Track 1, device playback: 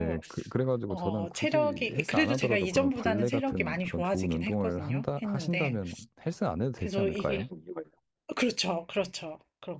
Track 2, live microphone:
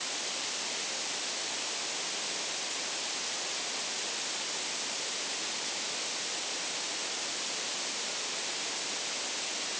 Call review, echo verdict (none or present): none